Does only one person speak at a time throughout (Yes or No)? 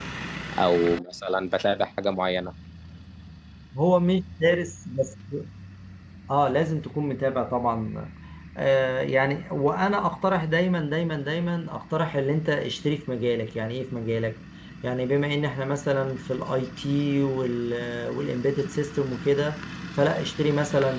Yes